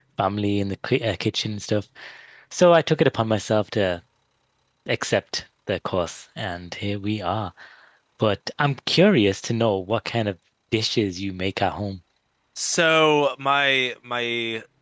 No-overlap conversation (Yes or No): Yes